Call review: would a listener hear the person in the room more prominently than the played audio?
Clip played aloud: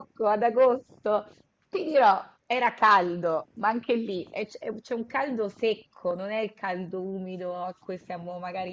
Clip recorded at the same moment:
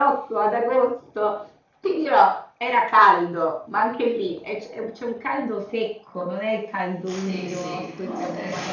No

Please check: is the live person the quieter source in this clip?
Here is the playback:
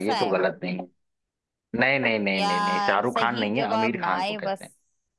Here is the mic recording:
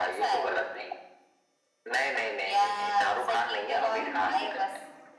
Yes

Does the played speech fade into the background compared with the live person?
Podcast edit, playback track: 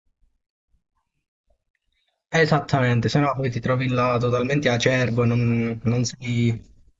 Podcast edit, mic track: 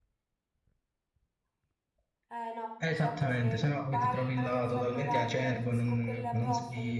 No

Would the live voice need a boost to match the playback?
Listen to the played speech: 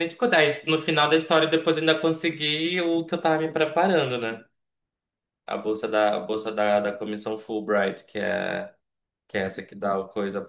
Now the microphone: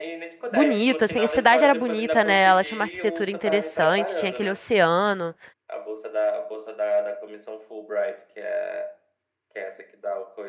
No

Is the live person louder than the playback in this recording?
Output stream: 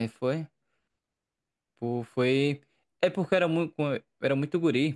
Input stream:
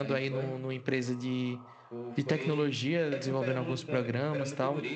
Yes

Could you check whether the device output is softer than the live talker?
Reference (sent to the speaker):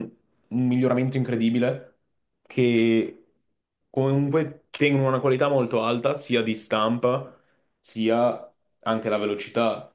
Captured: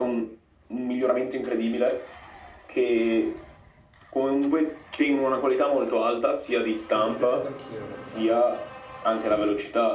No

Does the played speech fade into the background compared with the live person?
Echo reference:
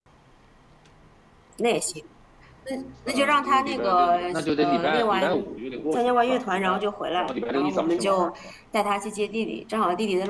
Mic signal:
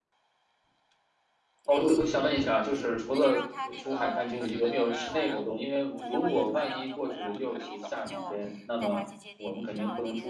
Yes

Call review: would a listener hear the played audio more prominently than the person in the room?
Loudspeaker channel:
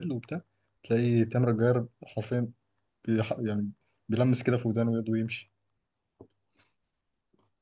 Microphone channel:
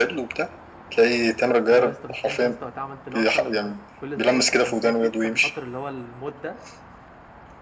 Yes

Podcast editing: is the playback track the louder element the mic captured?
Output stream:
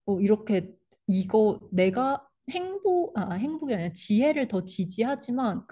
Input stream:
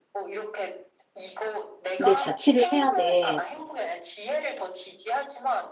No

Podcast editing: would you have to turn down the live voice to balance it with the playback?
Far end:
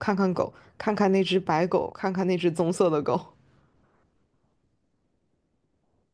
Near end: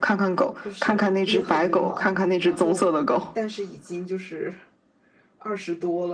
No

